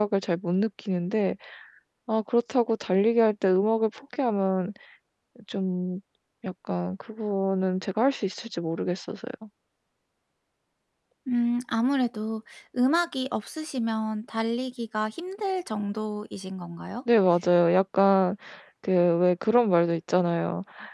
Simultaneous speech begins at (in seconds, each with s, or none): none